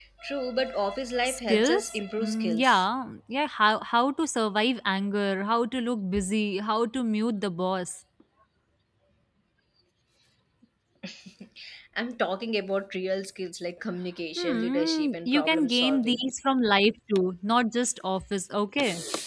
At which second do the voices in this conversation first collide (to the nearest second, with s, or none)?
1 s